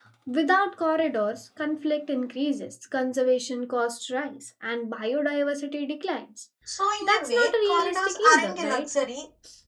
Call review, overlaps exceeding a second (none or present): present